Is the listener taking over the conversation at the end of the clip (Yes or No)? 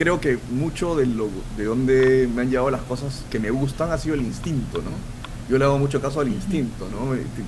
No